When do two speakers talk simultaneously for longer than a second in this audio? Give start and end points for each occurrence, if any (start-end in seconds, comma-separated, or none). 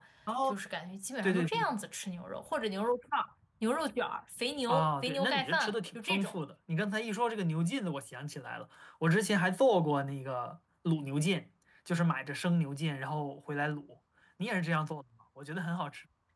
4.7-6.4